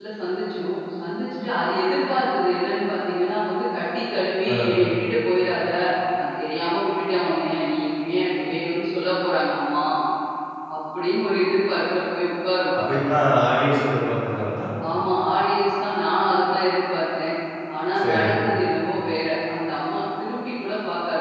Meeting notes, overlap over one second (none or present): none